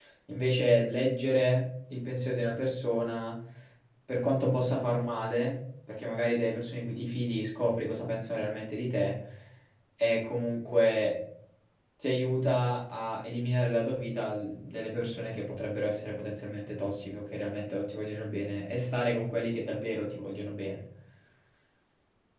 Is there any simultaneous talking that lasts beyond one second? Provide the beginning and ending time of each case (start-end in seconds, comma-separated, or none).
none